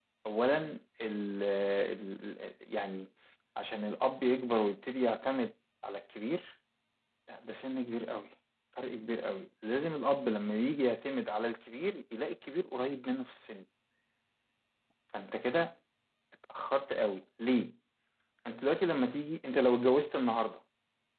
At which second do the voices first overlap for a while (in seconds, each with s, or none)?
none